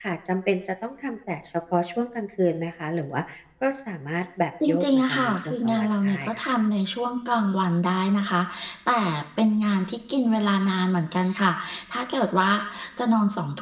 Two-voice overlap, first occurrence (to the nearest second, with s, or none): 5 s